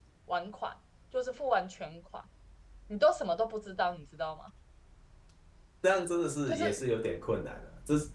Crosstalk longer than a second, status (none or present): none